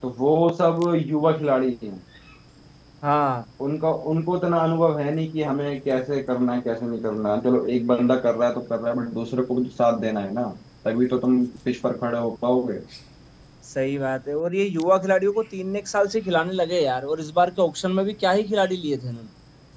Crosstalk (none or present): none